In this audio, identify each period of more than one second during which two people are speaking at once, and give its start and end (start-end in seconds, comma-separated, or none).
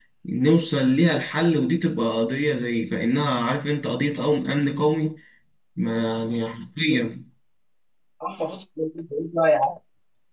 none